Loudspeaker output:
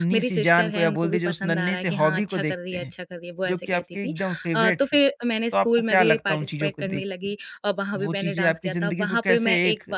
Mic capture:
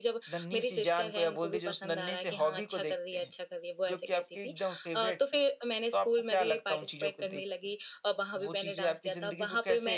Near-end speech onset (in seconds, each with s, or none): none